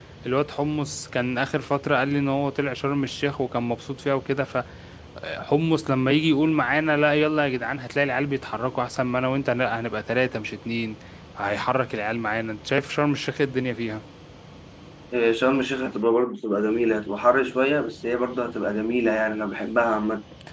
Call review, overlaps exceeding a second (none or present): none